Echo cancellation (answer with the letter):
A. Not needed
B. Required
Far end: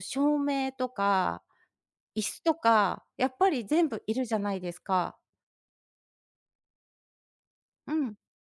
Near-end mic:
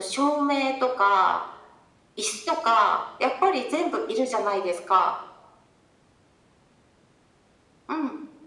B